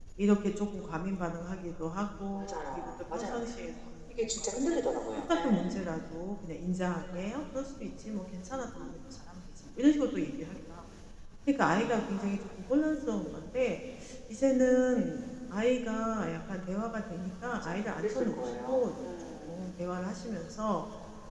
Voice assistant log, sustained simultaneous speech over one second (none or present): present